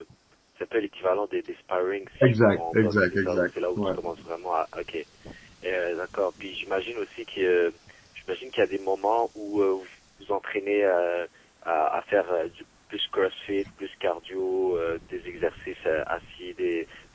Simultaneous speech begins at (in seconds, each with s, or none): 2.2 s